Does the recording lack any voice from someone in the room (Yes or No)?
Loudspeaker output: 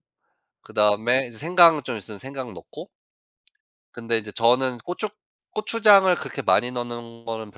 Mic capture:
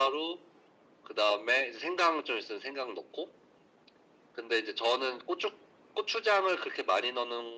Yes